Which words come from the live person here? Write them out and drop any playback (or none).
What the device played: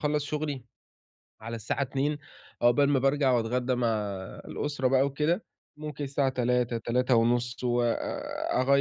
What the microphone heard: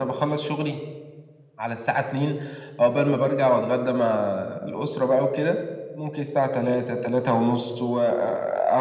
none